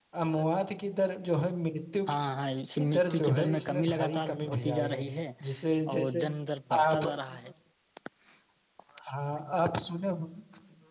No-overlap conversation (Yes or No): No